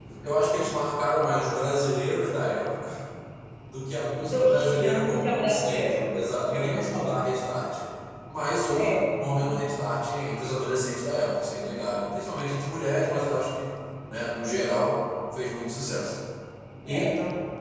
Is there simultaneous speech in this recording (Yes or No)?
Yes